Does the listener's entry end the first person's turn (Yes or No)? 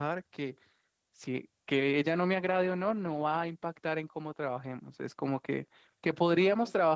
No